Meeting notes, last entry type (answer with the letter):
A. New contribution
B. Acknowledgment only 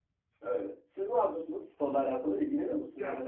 A